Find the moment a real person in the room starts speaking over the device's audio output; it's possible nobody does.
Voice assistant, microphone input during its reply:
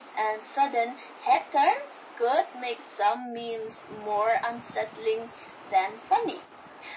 none

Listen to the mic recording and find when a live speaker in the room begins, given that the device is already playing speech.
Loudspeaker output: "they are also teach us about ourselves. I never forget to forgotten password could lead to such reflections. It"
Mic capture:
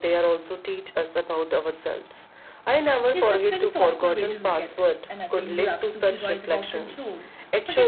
3.1 s

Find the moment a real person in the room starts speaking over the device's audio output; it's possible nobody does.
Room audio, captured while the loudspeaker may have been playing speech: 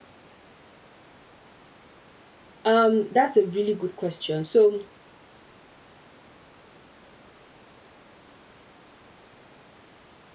2.6 s

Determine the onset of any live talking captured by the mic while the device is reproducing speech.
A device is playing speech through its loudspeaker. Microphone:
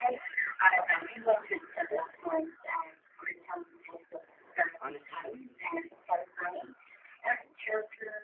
4.8 s

